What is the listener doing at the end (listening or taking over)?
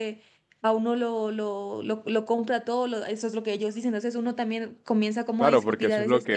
taking over